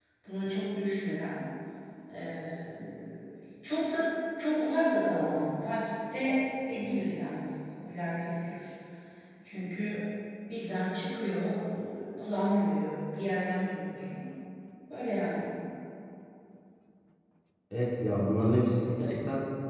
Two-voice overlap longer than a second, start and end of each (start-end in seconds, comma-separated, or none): none